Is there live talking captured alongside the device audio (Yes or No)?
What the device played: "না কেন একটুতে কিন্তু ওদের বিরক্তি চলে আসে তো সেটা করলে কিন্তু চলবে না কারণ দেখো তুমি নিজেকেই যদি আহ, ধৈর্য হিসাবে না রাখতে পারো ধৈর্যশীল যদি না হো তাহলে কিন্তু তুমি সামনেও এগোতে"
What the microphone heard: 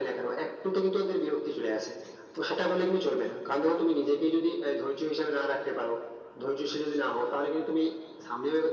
No